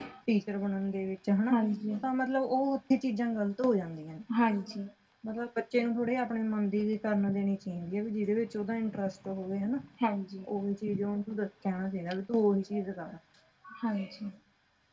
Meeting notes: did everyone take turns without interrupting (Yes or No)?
Yes